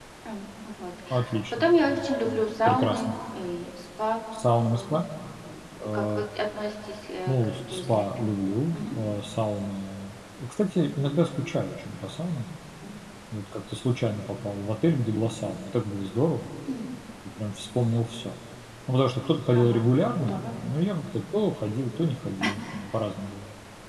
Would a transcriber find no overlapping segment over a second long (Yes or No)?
No